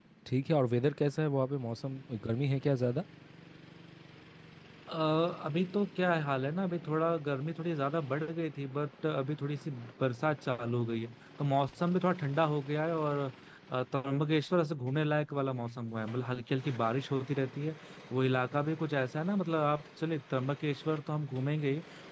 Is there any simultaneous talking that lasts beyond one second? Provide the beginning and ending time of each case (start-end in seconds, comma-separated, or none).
none